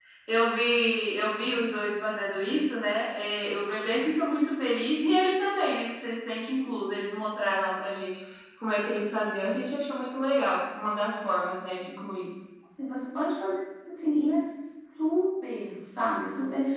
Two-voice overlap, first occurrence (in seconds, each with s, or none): none